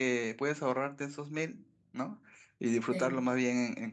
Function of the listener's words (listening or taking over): listening